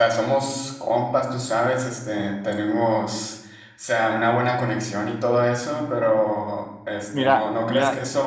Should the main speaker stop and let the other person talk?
No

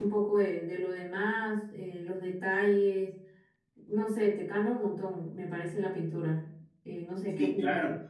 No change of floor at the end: No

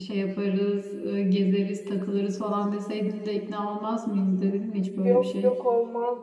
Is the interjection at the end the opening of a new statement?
Yes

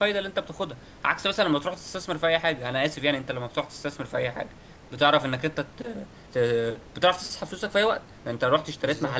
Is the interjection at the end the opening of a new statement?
No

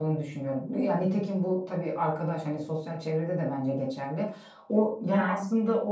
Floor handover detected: No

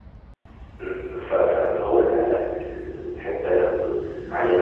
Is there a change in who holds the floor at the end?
Yes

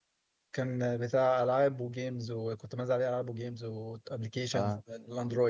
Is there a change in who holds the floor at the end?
No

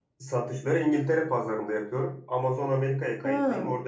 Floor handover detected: No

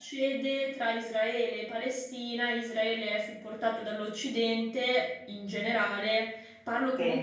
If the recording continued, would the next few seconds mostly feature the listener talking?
No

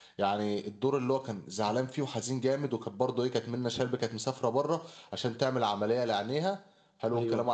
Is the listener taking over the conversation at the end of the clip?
No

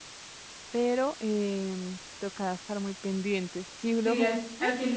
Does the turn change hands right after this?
Yes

